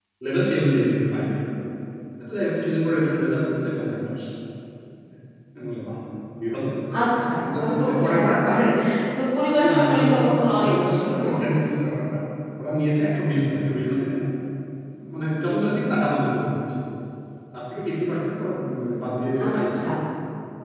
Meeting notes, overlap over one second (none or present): present